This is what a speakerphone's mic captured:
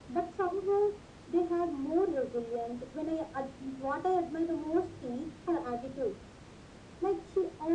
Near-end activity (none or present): none